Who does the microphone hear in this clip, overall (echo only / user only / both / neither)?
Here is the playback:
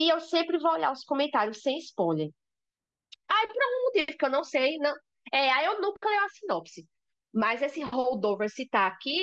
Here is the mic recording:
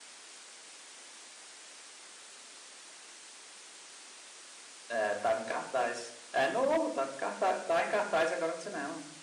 user only